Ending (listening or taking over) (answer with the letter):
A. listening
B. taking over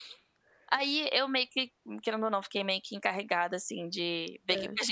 A